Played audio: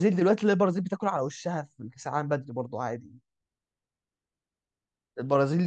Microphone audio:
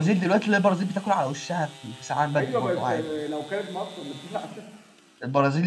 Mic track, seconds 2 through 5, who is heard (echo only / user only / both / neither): both